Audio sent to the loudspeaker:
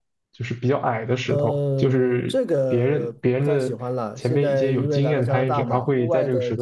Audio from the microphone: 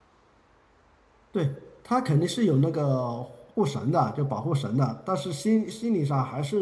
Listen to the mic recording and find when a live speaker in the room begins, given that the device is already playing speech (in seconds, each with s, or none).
1.3 s